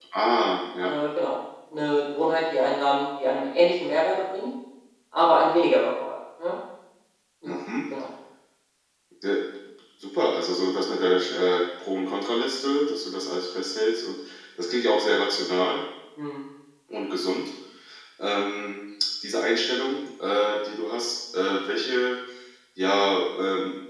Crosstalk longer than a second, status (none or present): none